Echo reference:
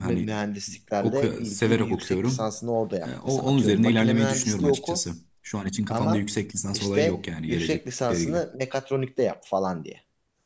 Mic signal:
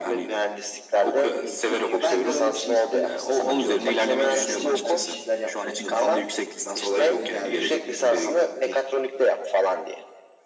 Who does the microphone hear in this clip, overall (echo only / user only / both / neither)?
both